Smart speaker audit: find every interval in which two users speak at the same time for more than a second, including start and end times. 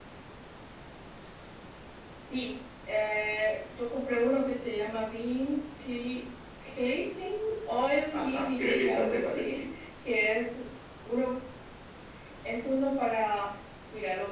8.1-9.7

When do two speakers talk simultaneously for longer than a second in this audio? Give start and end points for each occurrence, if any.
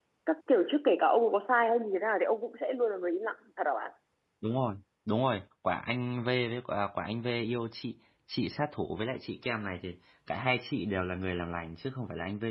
none

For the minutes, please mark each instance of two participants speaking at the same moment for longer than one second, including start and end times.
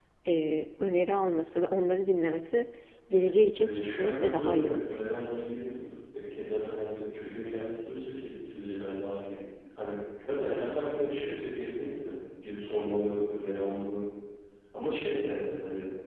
3.6-5.0

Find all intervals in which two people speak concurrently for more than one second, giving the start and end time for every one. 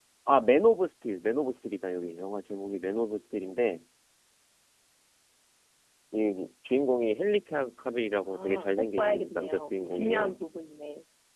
8.3-10.4

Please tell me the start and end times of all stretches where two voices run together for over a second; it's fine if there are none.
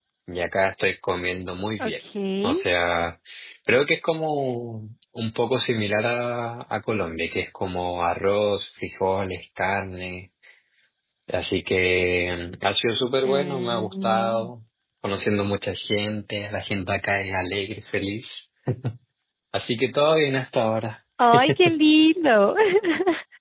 13.2-14.5

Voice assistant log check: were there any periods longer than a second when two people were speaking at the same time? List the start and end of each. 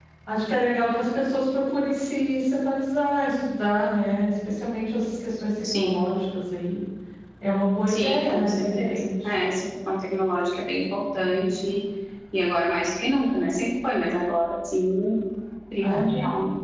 7.9-9.4

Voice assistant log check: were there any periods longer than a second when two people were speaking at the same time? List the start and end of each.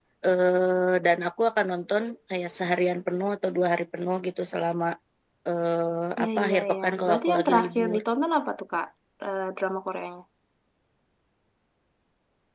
6.2-8.0

